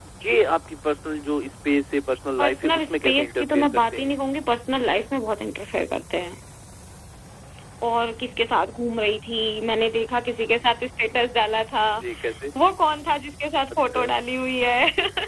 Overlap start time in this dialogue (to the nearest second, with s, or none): 2 s